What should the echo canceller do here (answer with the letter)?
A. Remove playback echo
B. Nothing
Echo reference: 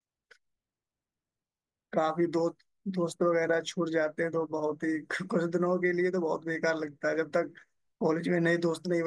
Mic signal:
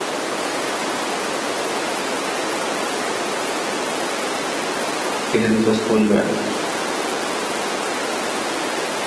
B